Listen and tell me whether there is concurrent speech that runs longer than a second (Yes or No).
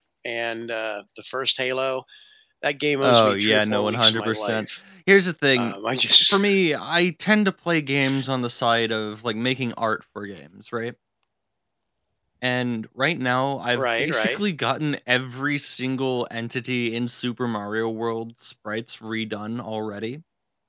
Yes